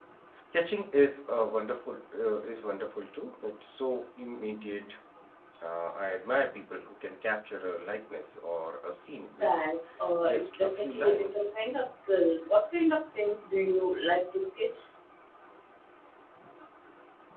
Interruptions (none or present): present